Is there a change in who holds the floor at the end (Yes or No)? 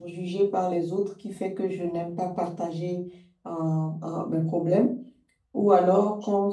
No